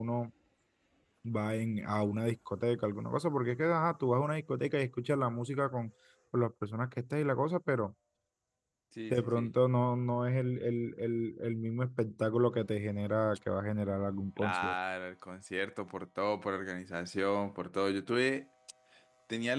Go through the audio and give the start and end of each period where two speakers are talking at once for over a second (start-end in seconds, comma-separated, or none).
none